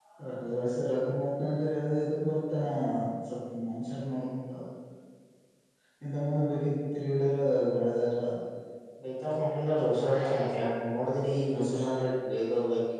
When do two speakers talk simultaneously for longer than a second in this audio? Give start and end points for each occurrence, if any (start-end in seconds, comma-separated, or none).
none